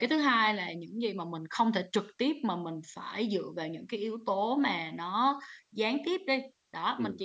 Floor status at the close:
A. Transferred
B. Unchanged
B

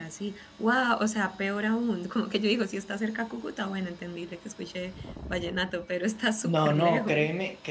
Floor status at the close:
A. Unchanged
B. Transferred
B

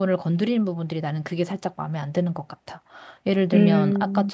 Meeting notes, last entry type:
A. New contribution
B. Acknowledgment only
B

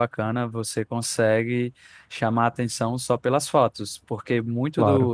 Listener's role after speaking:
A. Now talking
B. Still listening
B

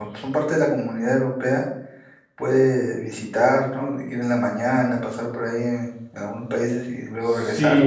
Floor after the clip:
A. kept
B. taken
B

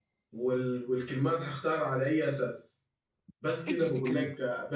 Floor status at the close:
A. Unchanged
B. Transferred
A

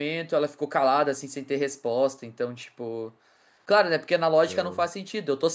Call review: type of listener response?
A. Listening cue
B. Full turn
A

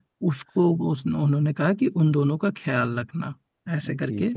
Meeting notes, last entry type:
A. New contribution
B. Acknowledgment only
B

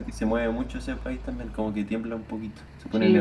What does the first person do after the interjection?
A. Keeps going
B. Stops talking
B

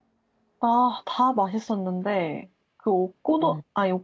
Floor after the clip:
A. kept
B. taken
A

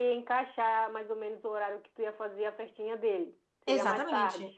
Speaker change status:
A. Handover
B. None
A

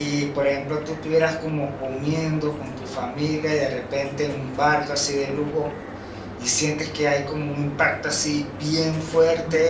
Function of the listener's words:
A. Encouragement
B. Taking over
A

